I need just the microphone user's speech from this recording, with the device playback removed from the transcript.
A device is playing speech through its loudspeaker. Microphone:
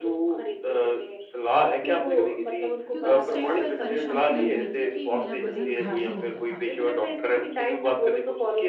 क्योंकि उस टाइम पर परेशानी ये हुई थी कि मेरा वज़न घट ही नहीं रहा था

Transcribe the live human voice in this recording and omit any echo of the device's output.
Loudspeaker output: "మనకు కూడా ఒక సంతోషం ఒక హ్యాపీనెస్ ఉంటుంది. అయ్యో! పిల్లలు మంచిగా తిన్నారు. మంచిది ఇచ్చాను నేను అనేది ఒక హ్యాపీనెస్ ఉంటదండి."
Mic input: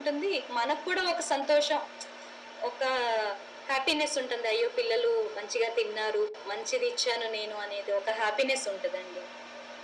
none

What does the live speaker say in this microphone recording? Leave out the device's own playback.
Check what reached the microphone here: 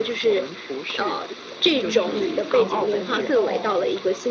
嗯，这个我觉得倒，

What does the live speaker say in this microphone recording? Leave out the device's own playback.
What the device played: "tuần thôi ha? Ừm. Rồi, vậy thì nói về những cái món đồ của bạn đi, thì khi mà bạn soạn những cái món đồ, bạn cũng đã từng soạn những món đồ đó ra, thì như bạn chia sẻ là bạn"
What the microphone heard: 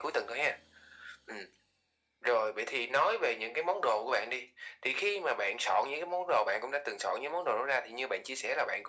none

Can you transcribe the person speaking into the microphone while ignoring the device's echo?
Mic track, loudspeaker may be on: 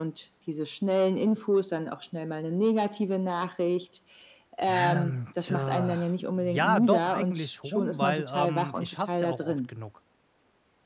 Ähm, tja, ja, doch, eigentlich schon, weil, ähm, ich schaff's ja auch oft genug.

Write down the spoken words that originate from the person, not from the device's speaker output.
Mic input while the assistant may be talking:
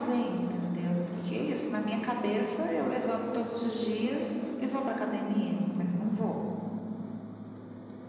none

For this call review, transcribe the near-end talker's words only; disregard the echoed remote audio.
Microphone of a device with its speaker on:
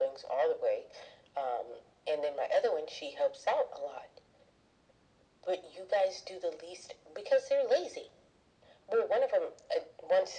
none

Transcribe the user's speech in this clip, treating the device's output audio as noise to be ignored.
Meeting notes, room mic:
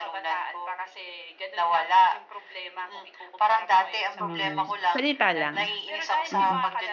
hmm, salita lang, mm.

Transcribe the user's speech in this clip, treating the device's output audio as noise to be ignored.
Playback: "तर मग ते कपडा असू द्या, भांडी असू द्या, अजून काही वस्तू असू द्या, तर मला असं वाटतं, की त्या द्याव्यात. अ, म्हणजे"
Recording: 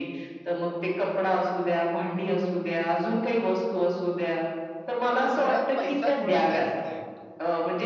तर घरात पैसा थोडा जास्त येतो

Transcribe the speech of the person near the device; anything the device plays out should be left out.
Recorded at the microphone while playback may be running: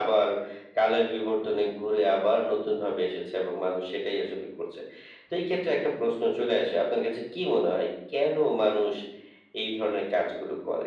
none

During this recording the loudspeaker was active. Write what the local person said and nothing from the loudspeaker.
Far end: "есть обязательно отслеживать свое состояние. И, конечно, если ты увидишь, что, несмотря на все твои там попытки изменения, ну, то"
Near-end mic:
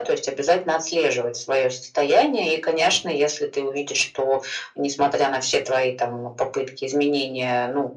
none

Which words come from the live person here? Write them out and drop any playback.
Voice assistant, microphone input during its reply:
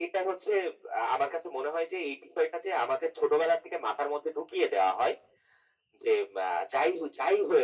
none

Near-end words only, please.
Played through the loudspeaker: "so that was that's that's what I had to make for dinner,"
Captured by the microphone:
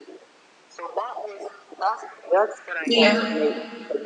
Yeah.

